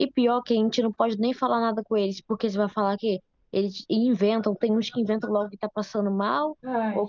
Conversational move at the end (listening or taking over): listening